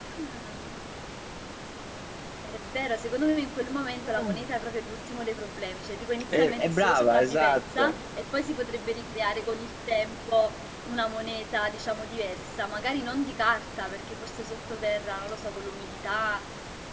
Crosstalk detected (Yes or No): Yes